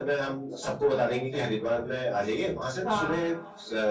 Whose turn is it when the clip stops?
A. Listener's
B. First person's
B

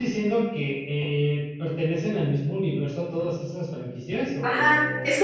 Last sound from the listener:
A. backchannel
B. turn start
B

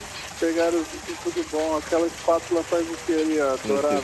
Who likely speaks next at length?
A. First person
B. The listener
B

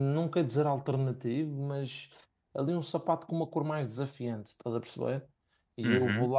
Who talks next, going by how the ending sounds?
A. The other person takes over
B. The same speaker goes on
B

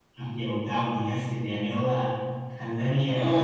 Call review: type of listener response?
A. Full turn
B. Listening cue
A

